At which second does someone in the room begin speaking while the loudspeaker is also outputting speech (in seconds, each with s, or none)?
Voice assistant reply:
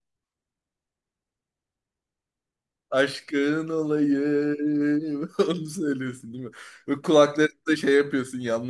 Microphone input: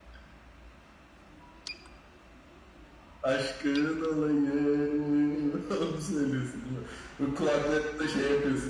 none